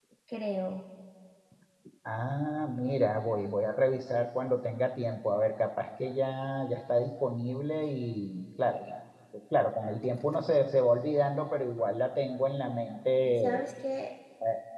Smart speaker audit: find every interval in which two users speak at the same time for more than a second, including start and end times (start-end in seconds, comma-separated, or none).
none